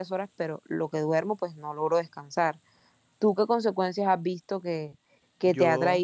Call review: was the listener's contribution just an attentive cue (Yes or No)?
Yes